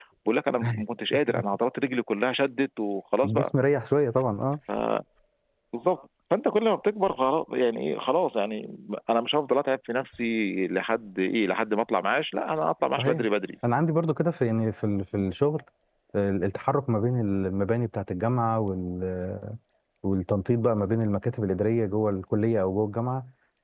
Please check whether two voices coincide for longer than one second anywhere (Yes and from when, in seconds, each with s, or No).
No